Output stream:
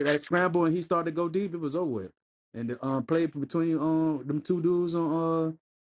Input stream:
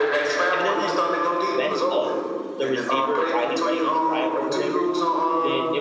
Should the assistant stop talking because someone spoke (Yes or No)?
Yes